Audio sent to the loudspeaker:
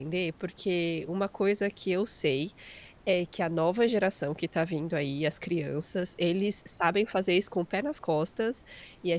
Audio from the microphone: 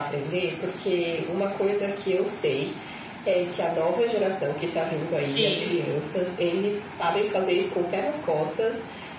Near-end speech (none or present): present